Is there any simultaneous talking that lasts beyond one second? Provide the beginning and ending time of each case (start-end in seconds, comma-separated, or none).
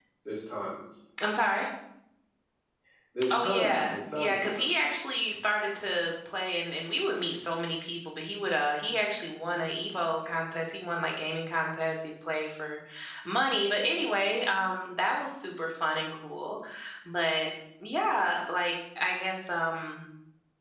3.3-4.7